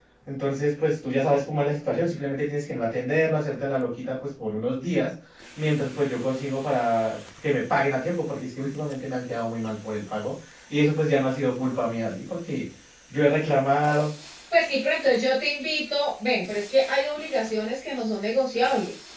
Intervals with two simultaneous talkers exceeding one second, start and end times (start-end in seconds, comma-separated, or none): none